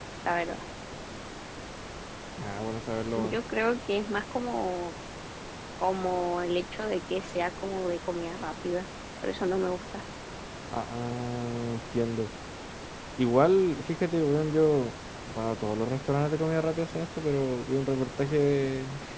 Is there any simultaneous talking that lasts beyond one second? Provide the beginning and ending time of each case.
none

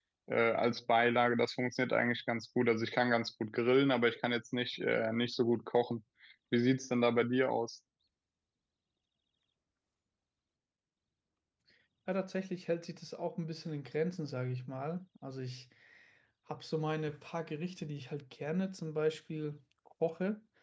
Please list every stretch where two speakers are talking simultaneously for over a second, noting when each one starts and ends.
none

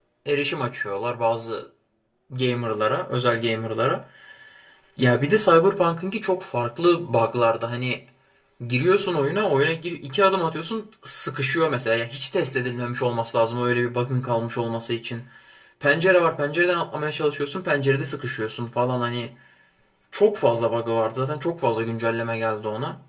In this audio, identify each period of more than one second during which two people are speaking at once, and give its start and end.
none

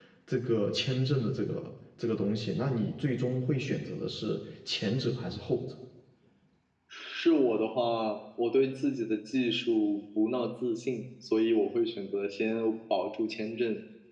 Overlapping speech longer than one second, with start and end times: none

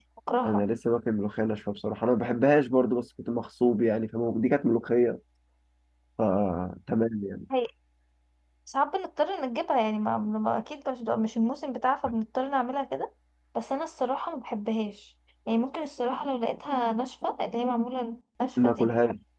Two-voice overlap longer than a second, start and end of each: none

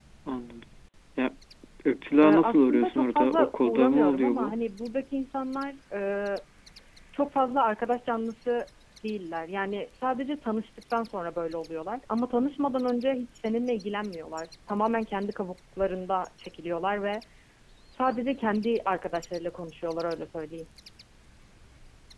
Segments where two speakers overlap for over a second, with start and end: 2.2-4.5

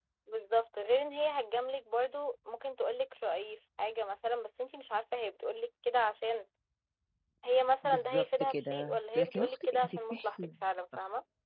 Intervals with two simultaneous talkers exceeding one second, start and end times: 7.8-10.4

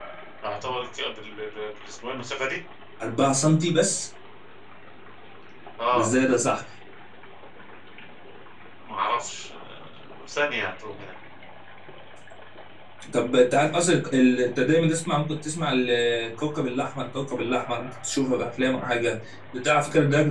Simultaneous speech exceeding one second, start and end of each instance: none

